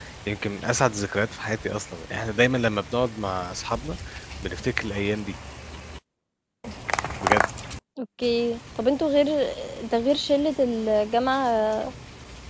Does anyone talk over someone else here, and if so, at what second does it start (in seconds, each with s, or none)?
none